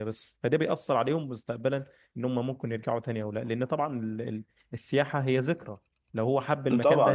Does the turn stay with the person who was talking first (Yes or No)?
No